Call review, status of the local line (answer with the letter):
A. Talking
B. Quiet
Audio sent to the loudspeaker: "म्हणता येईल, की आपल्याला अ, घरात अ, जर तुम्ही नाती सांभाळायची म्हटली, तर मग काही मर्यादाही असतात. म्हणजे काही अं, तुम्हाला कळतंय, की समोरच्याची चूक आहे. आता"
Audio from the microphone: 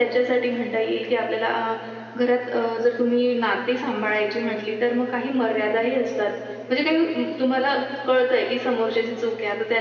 B